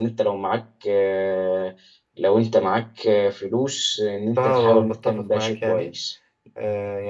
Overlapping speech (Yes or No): Yes